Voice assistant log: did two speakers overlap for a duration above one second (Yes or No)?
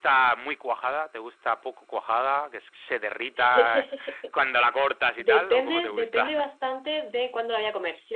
Yes